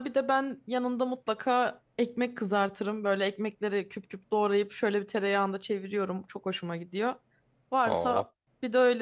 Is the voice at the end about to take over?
No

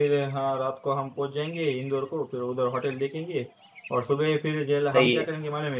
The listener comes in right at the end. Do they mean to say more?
No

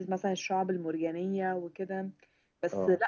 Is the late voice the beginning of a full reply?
No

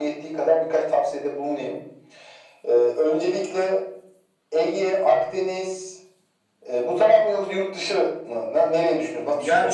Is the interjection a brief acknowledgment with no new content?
No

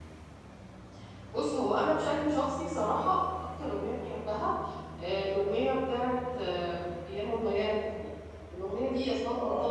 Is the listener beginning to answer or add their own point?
No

